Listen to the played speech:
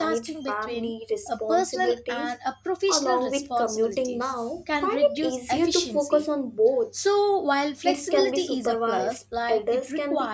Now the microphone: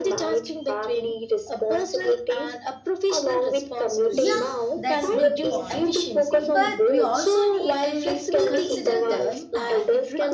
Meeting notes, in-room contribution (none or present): present